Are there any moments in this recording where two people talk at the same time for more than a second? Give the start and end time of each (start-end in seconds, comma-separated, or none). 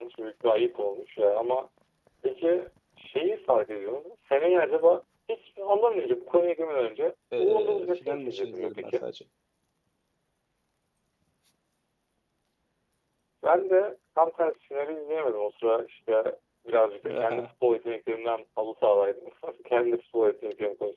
7.4-9.0